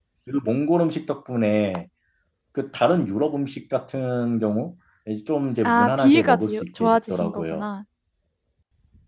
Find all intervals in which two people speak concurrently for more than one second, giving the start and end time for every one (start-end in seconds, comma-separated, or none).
5.6-7.6